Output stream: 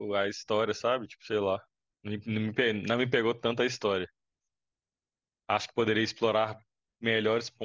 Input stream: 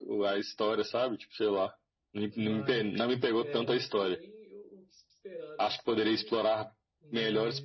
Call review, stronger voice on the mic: echo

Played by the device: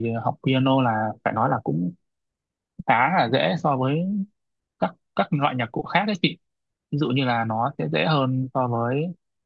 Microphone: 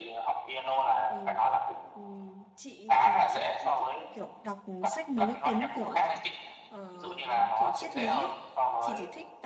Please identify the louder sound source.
echo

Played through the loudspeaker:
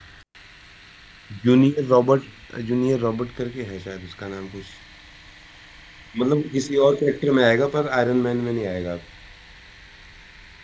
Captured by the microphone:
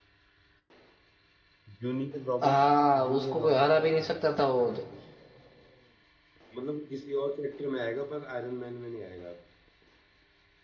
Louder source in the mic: user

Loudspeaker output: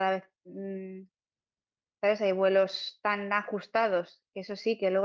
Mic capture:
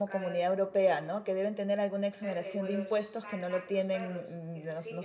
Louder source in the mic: user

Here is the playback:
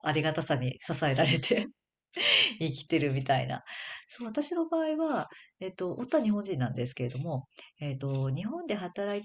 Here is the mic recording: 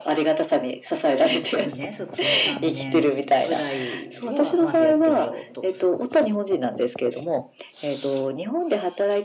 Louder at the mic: echo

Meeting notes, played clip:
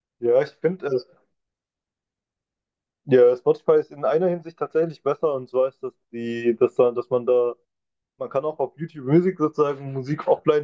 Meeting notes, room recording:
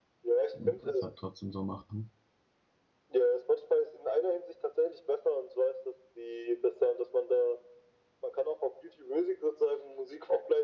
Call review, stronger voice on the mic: echo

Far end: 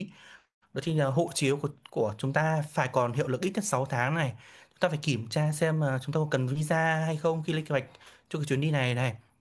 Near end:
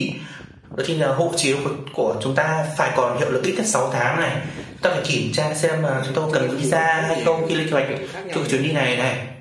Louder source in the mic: echo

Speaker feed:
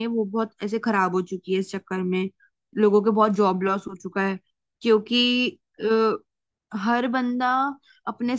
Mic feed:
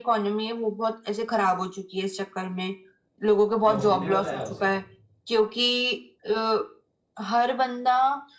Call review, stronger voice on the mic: echo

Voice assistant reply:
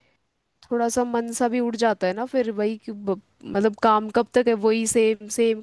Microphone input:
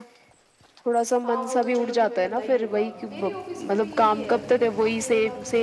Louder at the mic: echo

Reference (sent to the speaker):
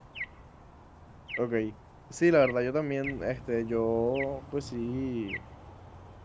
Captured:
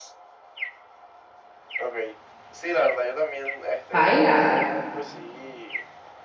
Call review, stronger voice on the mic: user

